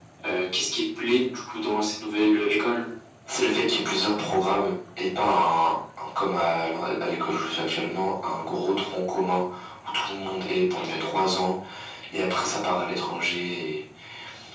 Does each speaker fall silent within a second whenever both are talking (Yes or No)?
Yes